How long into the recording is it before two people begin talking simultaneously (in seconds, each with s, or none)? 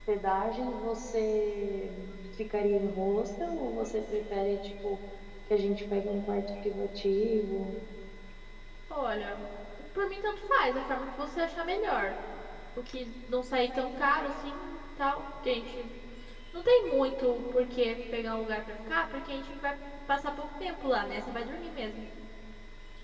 none